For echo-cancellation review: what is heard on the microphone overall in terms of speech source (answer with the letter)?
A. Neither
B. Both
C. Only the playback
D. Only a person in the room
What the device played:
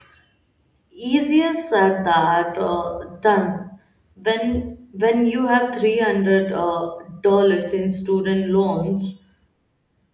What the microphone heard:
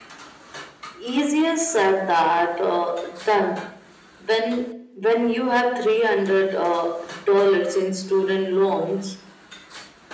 C